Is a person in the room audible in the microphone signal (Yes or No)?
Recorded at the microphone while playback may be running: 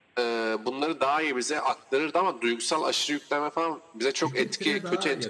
Yes